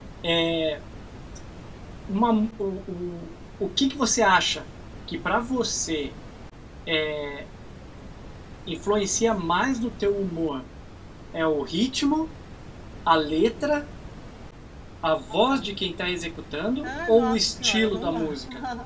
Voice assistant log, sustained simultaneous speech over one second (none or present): present